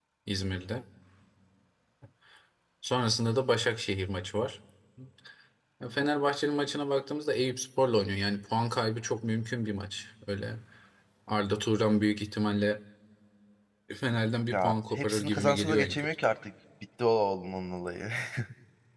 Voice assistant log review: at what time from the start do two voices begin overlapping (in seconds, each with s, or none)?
14.5 s